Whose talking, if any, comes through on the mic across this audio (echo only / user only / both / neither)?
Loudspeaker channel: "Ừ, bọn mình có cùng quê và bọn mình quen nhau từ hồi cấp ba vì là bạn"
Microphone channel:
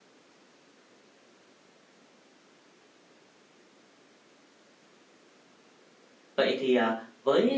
user only